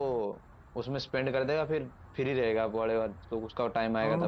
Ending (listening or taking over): taking over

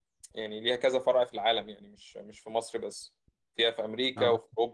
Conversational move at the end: listening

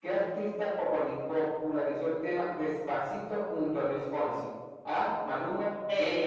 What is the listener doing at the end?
listening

